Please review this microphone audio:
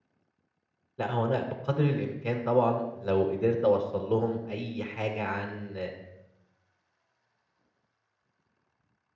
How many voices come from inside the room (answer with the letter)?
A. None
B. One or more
B